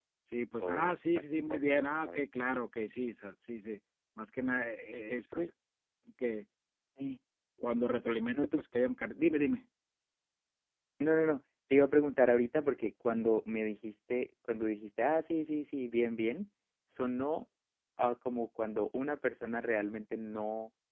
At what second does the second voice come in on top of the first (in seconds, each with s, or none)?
0.6 s